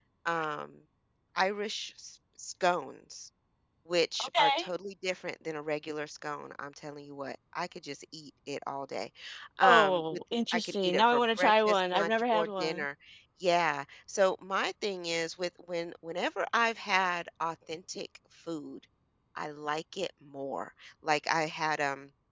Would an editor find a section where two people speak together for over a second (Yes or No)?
Yes